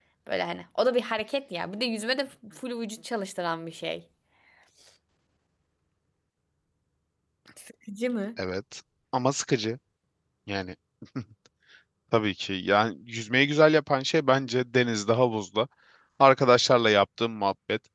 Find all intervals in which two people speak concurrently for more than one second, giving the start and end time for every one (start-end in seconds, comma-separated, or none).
none